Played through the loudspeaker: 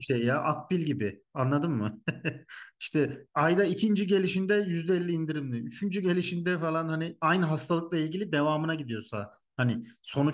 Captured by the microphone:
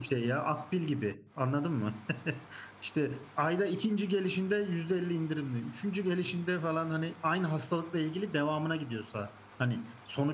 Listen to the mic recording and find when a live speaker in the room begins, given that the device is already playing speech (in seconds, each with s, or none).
none